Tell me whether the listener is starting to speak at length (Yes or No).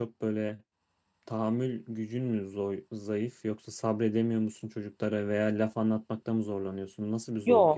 Yes